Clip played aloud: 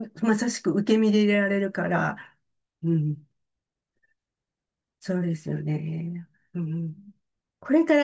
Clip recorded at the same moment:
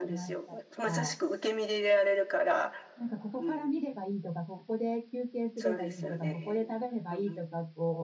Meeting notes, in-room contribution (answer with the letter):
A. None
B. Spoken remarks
B